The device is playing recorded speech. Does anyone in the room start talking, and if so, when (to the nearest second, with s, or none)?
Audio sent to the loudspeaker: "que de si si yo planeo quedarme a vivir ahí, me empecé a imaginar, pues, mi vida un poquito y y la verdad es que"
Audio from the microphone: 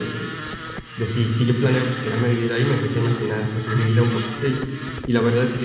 none